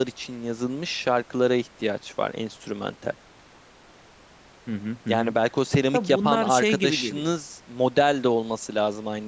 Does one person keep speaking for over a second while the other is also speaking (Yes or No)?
Yes